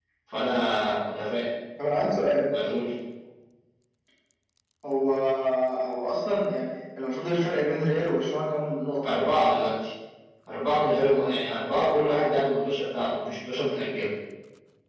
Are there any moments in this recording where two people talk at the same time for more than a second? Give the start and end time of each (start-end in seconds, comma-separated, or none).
none